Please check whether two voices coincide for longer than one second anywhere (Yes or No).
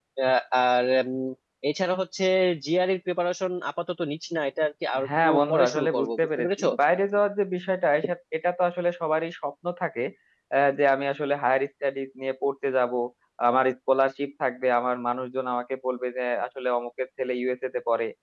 Yes